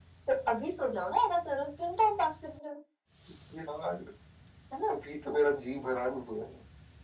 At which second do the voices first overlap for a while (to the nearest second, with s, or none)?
none